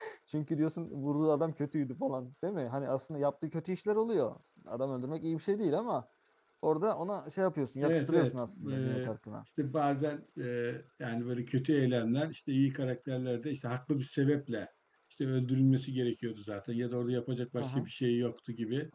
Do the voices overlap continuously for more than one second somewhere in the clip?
Yes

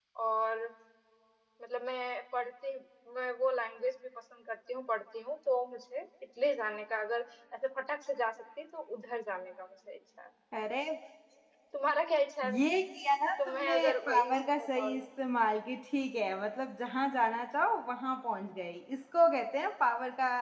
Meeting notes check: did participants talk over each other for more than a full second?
Yes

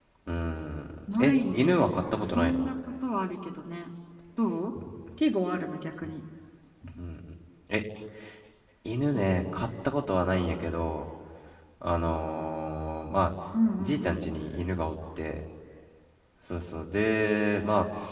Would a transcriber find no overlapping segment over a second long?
No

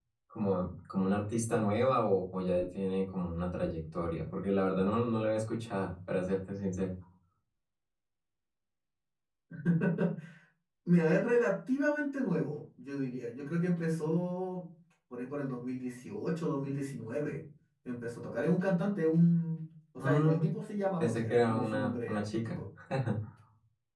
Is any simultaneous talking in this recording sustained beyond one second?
Yes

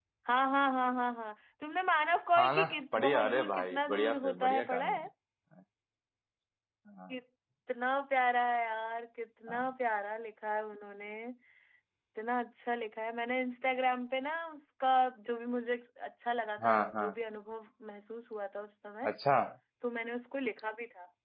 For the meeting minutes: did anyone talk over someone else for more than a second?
Yes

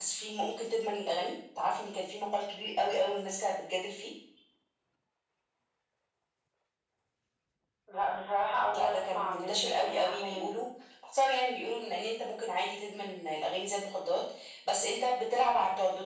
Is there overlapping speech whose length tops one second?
Yes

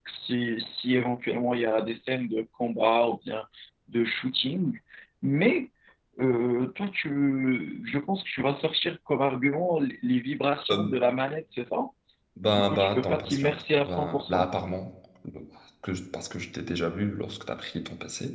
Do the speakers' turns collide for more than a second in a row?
Yes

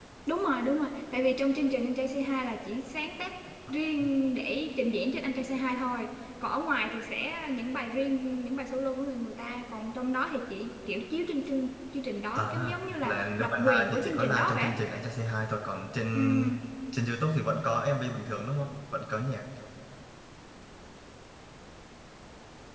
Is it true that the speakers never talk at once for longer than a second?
No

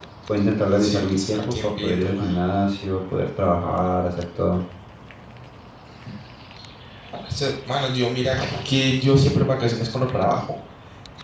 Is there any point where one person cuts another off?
Yes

